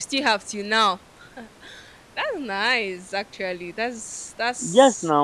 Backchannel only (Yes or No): No